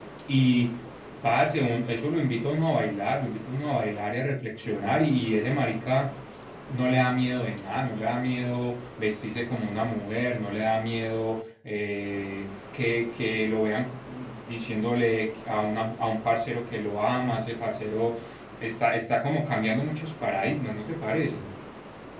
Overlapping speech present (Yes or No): No